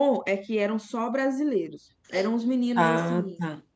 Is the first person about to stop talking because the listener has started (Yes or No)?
No